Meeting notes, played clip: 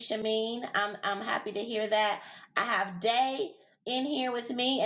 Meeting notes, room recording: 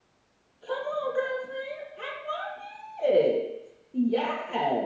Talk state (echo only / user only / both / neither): user only